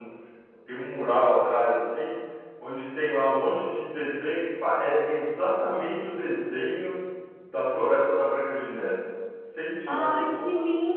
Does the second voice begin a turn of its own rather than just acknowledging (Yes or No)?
Yes